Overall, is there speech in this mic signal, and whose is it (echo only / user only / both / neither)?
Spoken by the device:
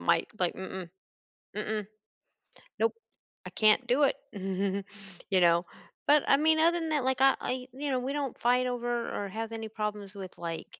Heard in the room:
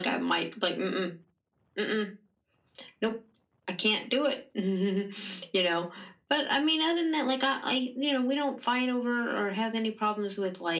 echo only